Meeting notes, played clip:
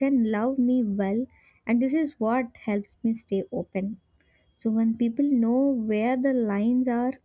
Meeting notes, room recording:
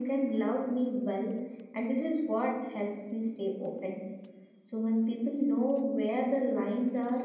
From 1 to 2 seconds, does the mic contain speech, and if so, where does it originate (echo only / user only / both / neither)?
echo only